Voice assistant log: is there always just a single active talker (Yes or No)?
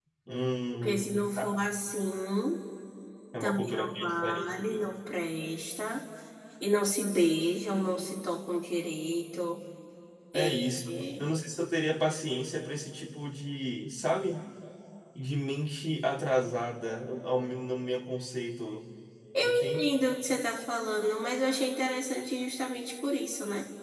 No